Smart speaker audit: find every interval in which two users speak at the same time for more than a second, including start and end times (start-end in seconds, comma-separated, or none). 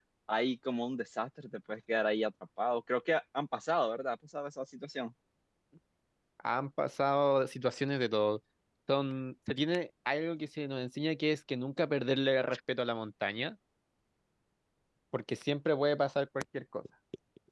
none